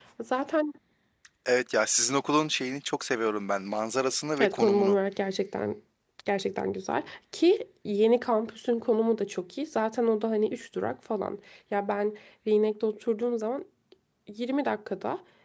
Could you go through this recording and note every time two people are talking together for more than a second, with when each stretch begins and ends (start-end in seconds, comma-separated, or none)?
none